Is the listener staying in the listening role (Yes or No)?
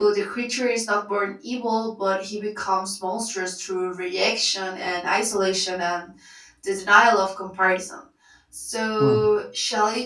Yes